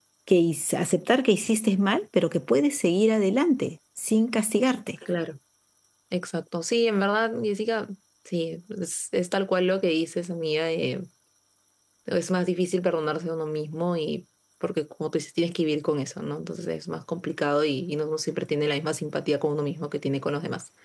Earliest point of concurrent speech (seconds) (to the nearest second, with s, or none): none